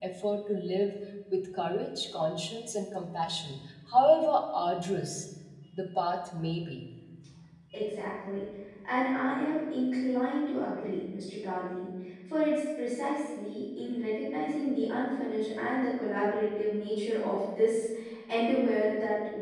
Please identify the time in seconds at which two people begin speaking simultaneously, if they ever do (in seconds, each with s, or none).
none